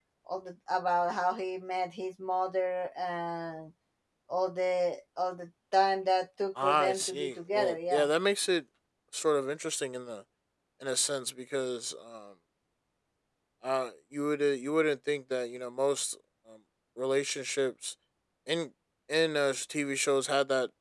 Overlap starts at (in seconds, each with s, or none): 6.6 s